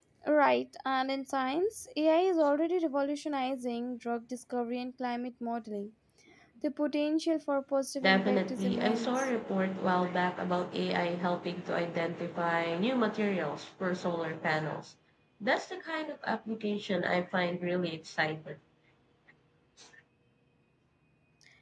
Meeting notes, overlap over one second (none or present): present